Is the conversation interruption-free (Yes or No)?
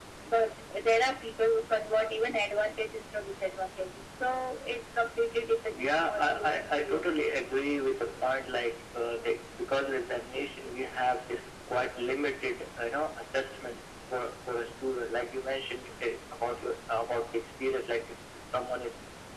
No